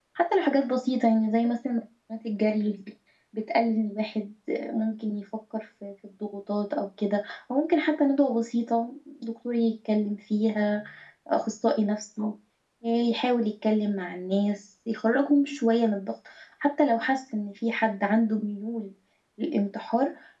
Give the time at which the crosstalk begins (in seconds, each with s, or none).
none